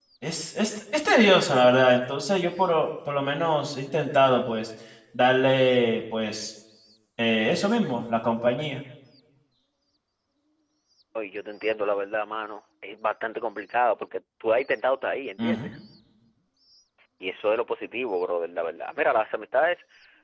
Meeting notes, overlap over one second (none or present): none